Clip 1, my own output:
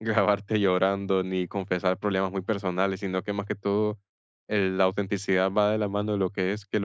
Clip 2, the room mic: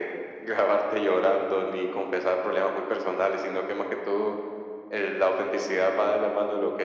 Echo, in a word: present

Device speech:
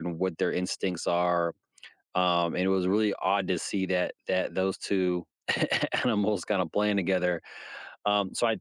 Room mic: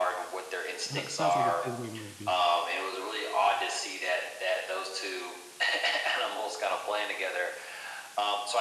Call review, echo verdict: present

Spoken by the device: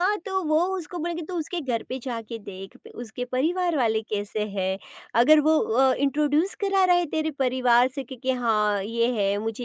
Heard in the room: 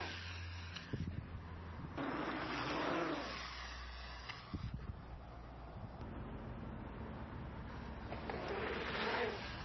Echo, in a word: none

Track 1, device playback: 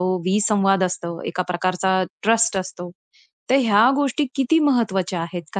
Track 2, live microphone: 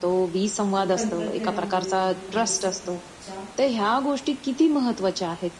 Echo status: present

